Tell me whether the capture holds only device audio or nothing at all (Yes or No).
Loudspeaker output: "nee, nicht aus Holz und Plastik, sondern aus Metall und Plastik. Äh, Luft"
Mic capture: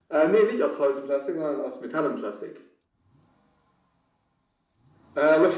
Yes